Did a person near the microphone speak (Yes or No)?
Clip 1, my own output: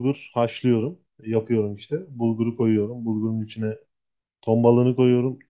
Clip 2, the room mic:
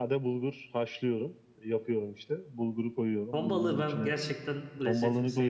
Yes